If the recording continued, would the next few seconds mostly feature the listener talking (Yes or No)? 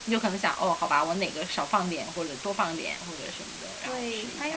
Yes